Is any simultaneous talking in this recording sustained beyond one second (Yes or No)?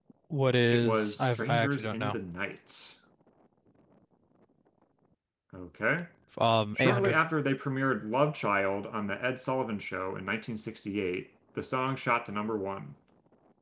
Yes